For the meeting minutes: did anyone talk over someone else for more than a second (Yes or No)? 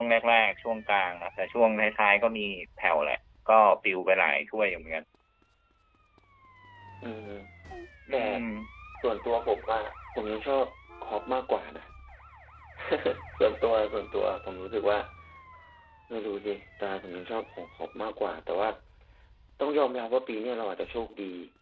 No